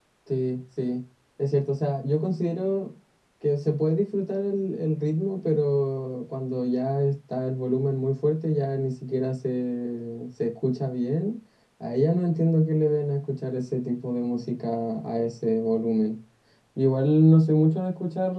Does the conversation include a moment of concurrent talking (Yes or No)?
No